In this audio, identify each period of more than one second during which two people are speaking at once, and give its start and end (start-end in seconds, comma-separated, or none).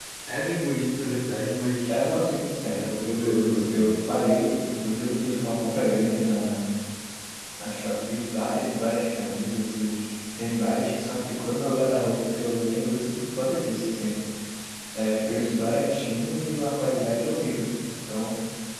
2.7-3.9